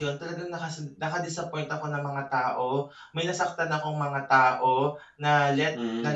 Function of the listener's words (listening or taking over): listening